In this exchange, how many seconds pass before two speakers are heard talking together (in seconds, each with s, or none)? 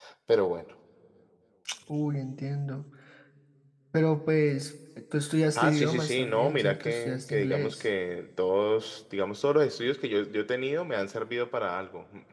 5.6 s